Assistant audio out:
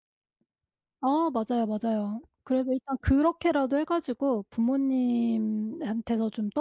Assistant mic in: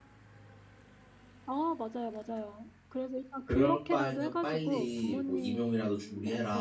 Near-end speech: present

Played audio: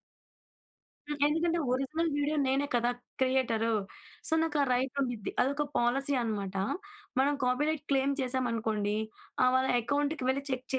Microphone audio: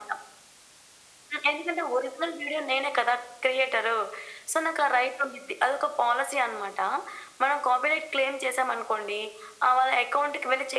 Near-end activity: none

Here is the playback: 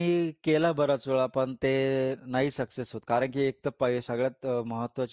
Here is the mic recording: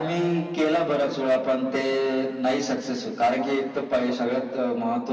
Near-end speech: none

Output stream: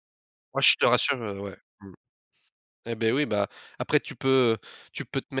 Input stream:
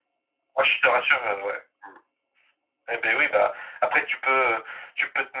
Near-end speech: none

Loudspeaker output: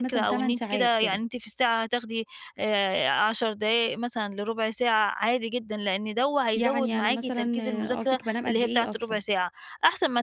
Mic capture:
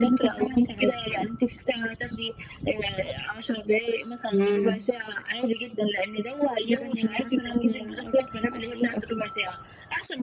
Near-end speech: present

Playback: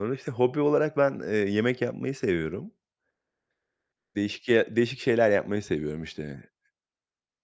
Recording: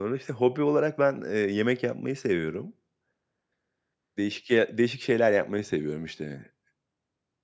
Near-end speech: none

